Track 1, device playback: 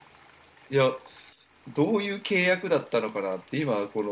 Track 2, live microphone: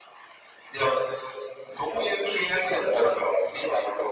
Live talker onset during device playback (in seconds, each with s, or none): none